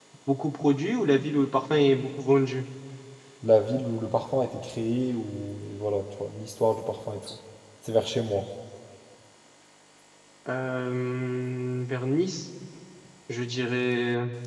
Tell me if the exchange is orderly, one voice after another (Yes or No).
Yes